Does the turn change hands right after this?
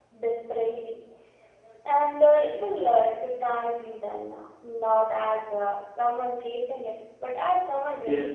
Yes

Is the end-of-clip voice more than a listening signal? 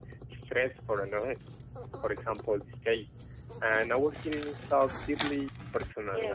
Yes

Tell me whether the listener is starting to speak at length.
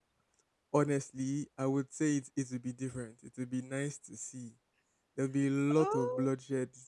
No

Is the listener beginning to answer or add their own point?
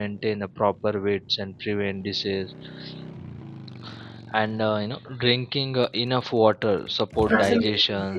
No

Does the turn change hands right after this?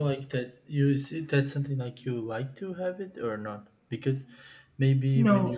No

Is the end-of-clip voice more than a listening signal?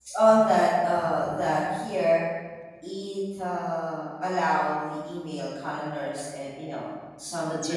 Yes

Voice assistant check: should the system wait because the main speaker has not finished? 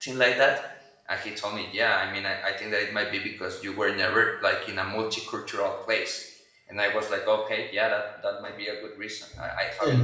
No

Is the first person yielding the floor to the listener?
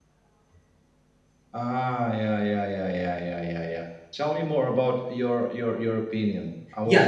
Yes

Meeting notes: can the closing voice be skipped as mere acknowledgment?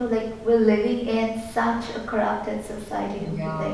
No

